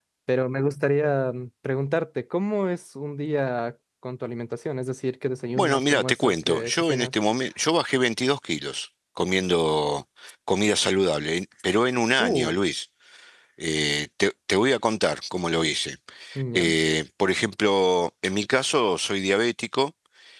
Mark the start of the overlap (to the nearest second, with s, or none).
6 s